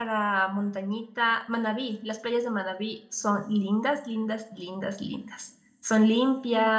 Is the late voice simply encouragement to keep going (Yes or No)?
No